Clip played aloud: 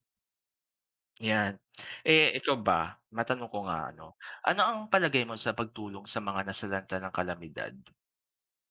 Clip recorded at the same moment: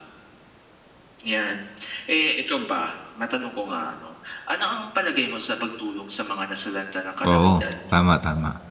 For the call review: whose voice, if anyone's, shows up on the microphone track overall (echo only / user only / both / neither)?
both